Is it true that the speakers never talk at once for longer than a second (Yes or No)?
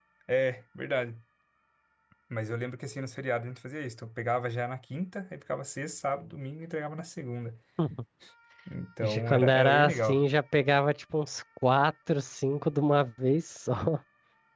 No